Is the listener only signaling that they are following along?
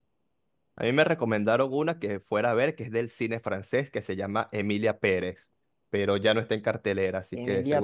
No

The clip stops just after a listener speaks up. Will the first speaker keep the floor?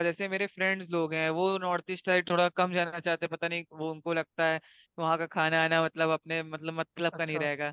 Yes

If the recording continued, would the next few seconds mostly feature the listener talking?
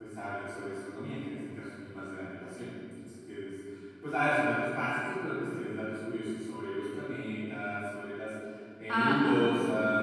No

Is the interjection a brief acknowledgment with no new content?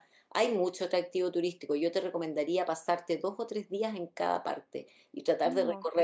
Yes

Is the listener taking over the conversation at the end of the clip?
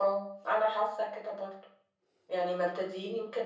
No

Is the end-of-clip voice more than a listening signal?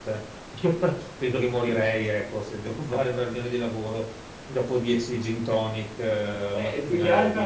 Yes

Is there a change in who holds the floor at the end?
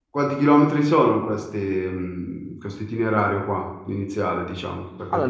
Yes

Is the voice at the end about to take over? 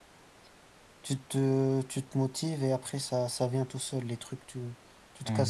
No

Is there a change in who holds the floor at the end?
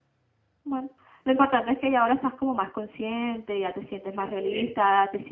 No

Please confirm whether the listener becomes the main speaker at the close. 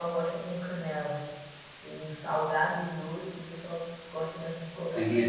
Yes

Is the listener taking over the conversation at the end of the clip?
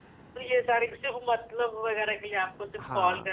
No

